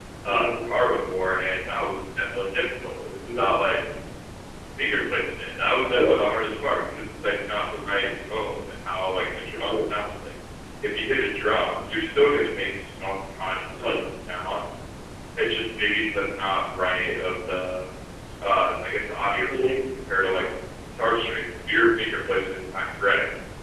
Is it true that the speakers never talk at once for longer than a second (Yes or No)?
Yes